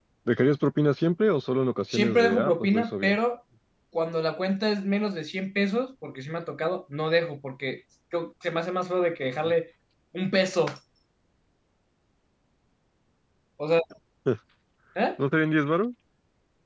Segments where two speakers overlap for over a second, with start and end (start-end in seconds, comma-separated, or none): 1.9-3.2